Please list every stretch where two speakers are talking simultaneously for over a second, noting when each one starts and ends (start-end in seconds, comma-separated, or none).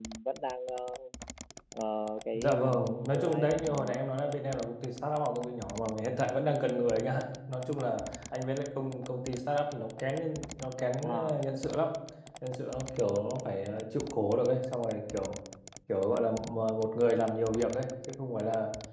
2.4-4.0